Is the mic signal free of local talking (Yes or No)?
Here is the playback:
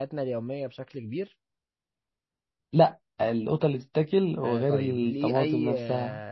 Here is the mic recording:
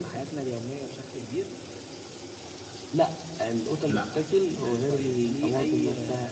No